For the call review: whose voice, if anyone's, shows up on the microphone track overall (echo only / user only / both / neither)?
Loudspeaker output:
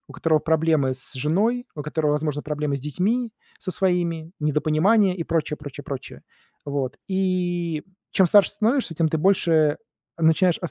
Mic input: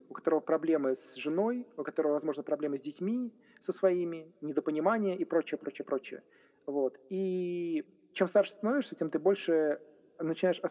echo only